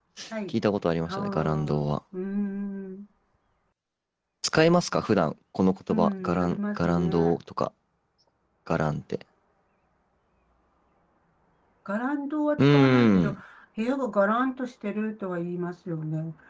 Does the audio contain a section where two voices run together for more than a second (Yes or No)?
Yes